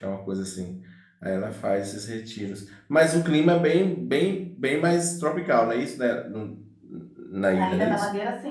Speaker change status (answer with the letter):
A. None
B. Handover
B